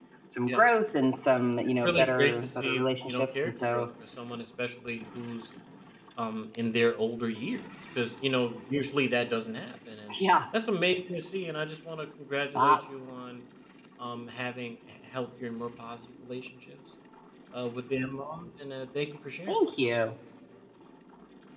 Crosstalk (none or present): present